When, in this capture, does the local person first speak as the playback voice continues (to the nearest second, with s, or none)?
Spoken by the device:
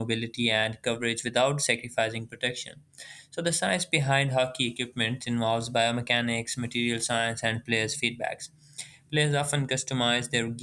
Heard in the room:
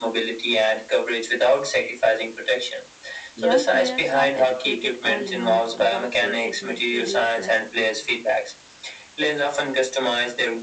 3 s